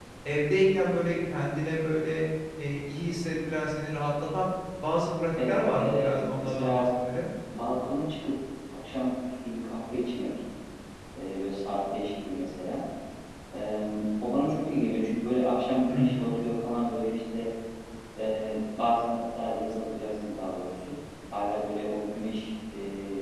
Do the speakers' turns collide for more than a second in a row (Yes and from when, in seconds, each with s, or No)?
Yes, from 5.4 s